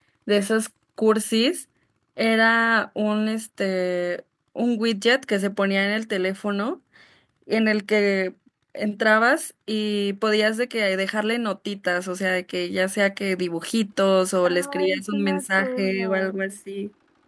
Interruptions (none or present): present